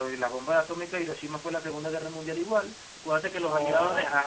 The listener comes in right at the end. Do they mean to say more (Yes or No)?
No